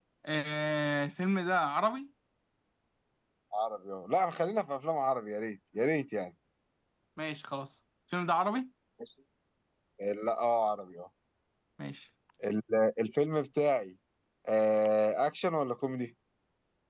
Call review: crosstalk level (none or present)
none